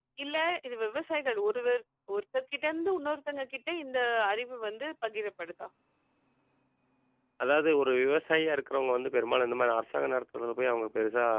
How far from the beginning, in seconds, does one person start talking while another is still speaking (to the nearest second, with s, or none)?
none